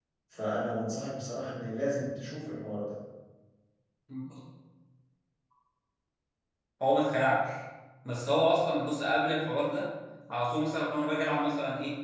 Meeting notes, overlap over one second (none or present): none